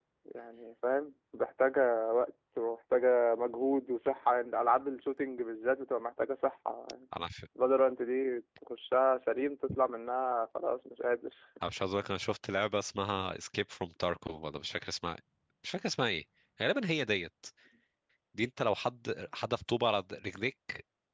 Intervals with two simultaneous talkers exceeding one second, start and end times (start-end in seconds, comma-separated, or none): none